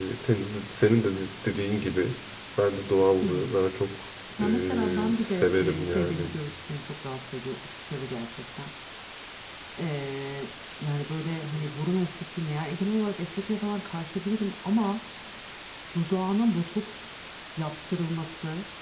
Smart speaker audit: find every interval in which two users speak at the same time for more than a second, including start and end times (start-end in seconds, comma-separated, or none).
4.4-6.3